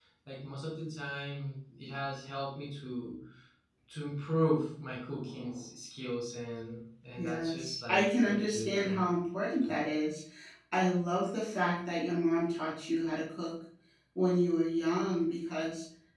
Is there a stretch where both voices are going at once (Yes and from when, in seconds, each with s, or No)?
Yes, from 7.2 s